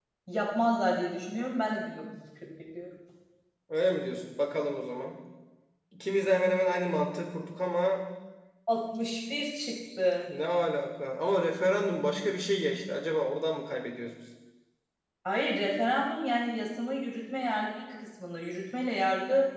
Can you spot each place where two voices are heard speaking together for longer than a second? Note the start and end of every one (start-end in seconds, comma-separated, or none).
none